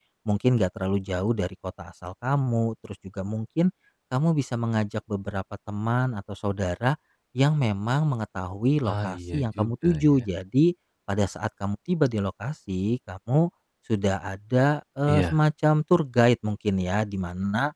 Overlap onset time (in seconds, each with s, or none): 8.9 s